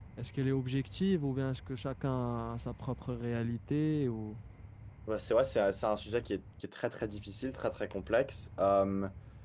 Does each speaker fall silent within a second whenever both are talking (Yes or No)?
Yes